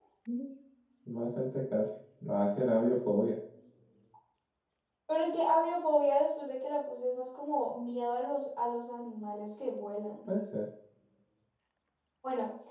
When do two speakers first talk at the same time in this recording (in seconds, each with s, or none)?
none